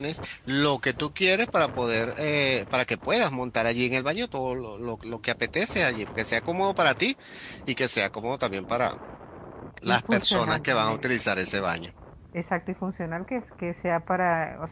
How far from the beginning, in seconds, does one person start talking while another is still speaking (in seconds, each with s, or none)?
9.9 s